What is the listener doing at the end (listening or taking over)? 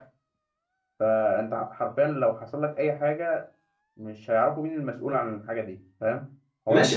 taking over